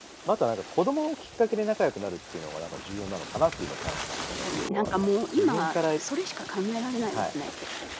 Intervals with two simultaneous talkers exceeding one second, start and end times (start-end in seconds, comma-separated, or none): 3.8-6.0